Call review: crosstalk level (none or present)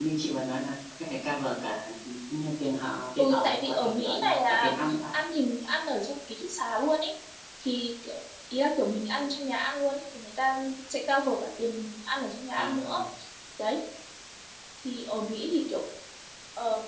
present